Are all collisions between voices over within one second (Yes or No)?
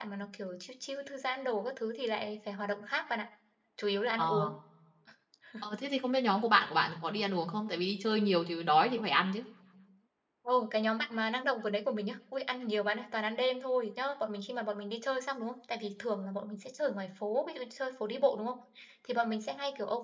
Yes